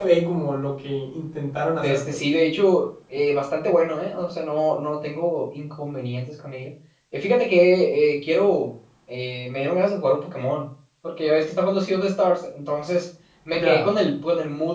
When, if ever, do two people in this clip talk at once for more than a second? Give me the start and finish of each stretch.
none

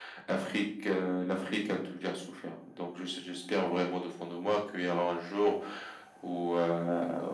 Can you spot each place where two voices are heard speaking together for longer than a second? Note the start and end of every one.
none

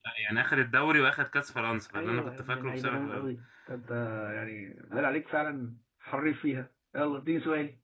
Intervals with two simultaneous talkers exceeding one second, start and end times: 2.0-3.3

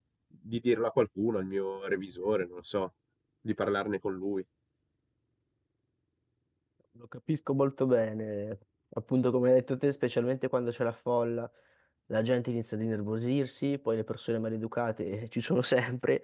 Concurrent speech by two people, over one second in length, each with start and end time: none

